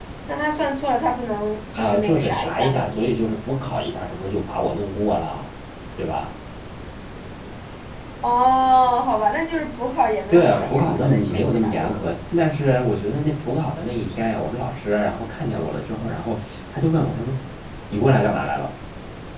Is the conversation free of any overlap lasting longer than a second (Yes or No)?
No